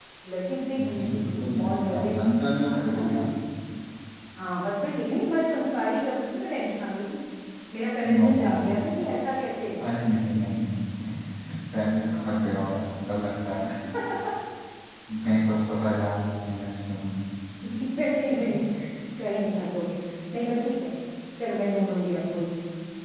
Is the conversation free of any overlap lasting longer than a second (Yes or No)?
No